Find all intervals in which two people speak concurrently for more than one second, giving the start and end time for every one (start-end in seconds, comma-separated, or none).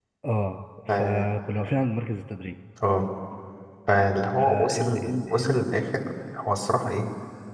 4.4-5.6